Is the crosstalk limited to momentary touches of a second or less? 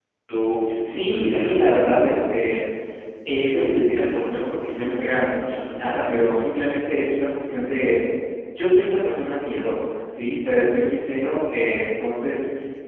No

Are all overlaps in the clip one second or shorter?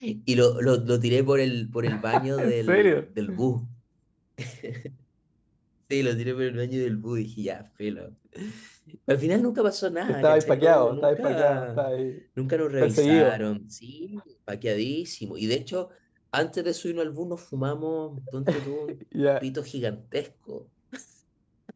No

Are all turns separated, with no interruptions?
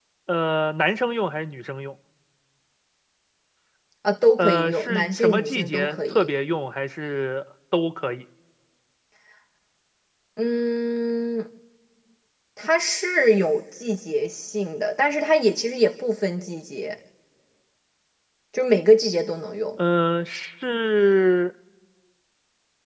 No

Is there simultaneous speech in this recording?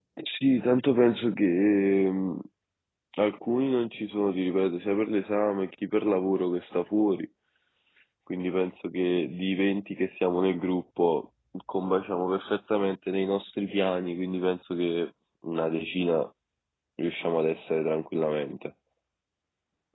No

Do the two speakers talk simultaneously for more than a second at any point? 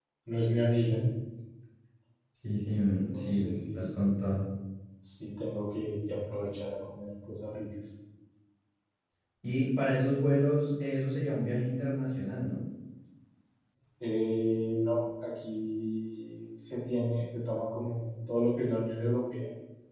Yes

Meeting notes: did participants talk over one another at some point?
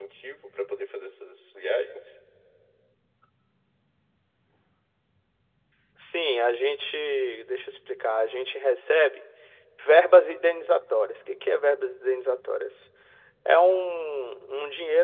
No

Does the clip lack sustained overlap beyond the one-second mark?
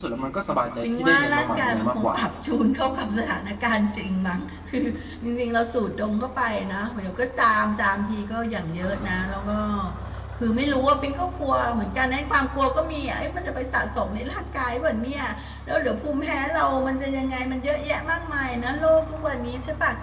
No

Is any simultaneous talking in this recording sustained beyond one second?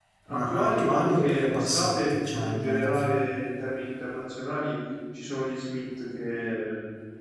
Yes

